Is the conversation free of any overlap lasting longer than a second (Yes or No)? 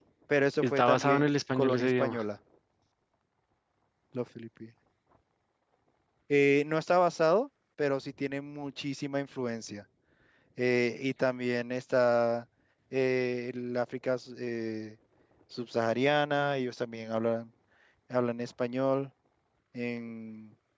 No